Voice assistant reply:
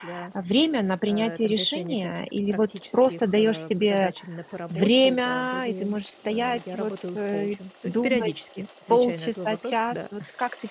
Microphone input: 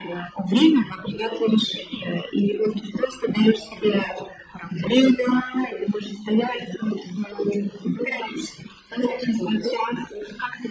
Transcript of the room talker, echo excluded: none

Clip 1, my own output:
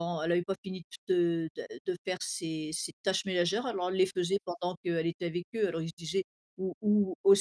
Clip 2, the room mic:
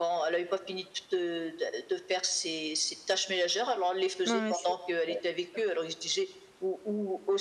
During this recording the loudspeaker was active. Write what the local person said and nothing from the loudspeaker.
non mais c'est ouais, c'est sûr.

